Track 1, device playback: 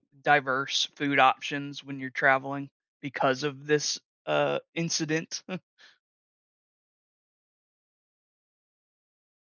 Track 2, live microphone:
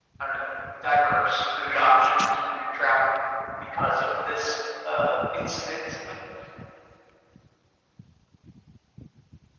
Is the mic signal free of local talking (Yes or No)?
Yes